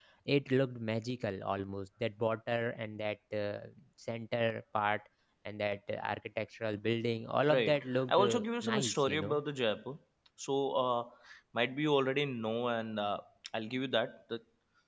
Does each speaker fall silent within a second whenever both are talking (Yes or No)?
No